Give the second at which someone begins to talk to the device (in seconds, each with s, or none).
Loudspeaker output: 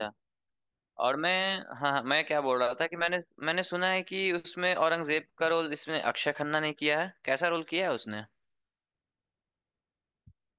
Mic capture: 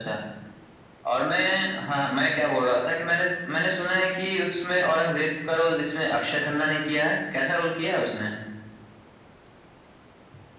none